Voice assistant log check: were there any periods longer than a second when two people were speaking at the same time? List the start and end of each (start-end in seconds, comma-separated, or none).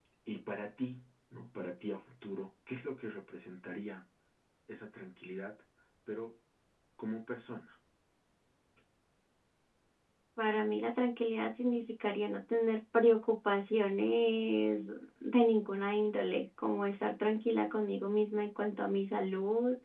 none